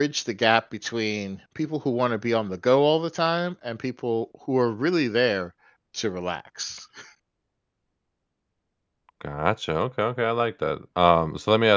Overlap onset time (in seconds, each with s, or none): none